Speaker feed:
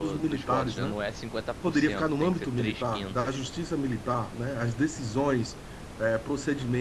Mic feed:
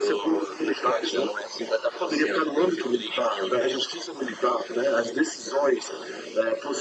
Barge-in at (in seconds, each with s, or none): none